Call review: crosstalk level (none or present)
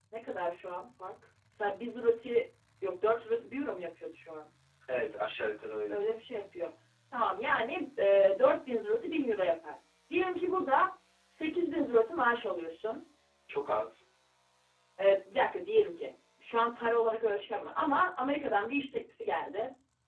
none